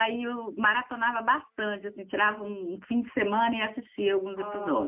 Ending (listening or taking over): taking over